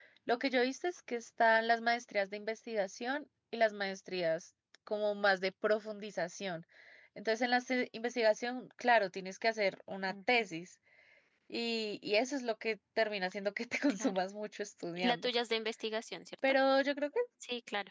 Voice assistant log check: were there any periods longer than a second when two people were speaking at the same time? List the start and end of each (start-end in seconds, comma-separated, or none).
none